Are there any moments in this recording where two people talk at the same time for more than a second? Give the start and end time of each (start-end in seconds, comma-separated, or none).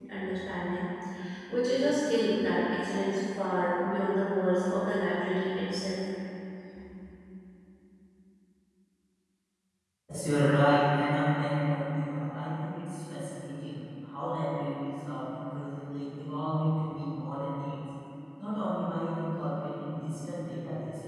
none